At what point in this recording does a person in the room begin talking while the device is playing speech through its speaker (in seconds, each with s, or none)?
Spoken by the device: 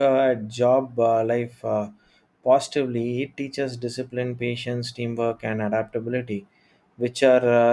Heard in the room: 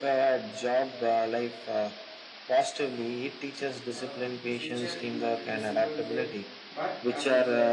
3.9 s